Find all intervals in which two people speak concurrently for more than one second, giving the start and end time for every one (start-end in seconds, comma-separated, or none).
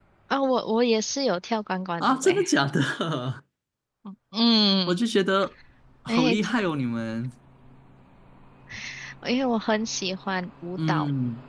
none